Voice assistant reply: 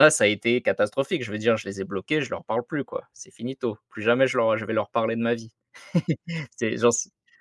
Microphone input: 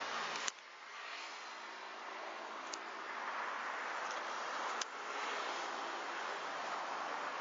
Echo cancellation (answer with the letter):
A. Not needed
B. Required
A